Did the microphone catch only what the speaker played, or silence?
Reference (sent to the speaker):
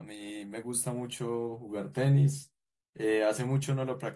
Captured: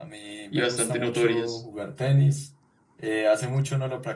No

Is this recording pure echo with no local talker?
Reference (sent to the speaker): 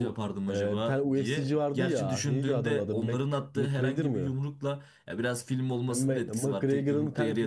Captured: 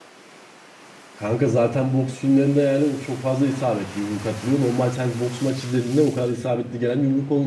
No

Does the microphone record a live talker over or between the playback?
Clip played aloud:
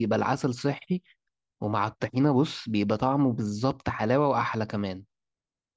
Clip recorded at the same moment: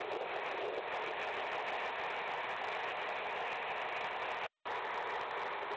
No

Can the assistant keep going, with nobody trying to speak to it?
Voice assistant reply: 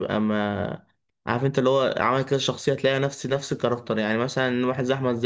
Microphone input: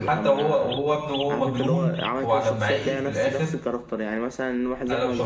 No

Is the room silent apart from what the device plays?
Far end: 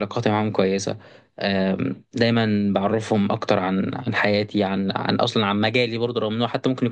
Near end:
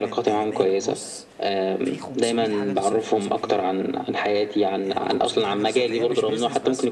No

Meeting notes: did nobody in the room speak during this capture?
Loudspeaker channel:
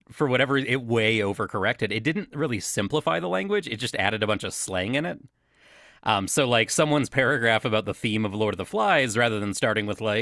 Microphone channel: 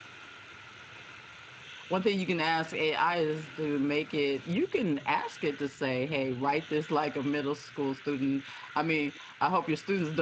No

